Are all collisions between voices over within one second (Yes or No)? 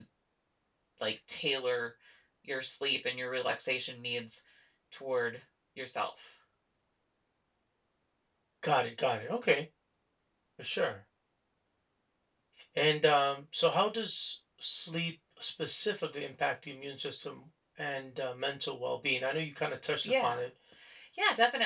Yes